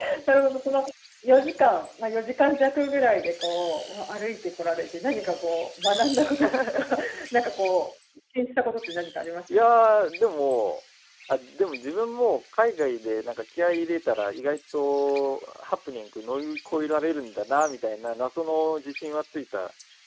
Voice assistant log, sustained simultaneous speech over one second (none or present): none